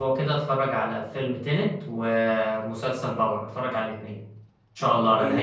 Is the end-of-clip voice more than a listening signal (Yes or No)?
Yes